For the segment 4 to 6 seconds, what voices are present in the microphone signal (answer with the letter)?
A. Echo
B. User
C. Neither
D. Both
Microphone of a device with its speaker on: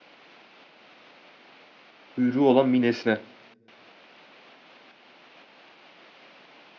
C